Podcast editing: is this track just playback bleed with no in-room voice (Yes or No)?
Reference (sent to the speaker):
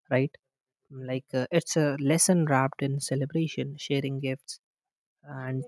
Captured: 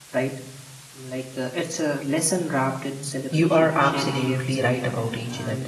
No